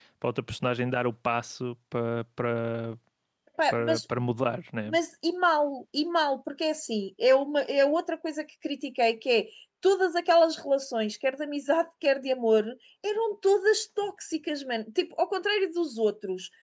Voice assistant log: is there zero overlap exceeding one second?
Yes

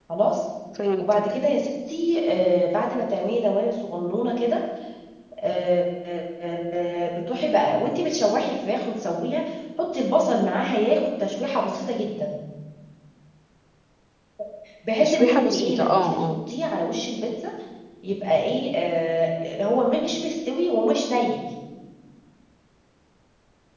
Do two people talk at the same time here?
Yes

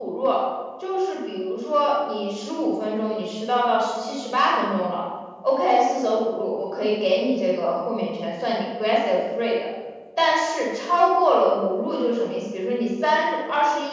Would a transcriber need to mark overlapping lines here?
No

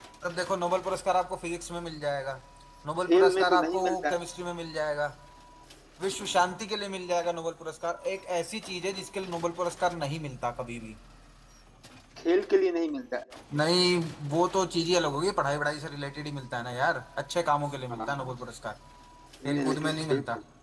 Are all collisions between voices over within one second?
No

